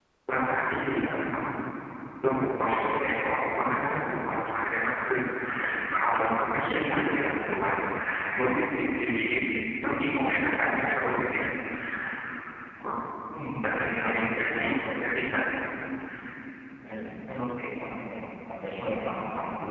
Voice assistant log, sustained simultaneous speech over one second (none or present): present